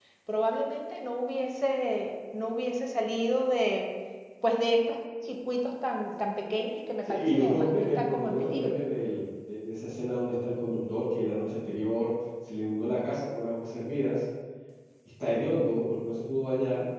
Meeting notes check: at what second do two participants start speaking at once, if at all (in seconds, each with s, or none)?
7.0 s